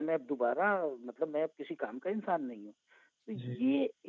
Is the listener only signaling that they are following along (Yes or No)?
Yes